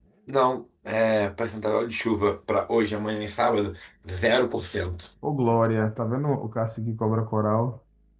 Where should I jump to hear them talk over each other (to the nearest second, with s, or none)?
none